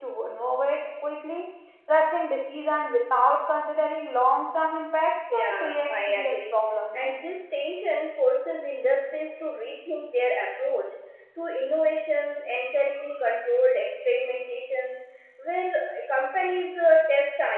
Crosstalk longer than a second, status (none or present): present